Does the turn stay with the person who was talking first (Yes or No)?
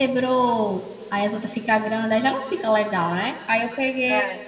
Yes